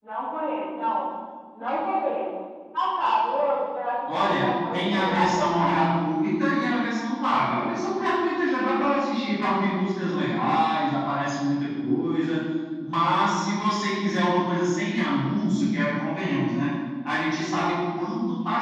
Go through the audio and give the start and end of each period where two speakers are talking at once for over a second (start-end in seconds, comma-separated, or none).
4.1-5.9